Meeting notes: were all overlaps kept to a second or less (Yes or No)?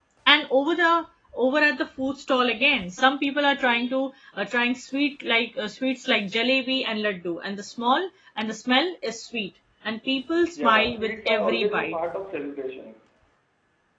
No